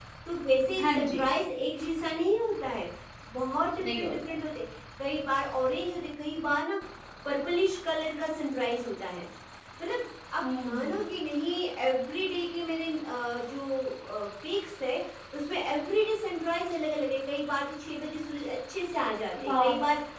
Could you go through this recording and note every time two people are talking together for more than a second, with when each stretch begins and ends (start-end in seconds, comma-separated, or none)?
none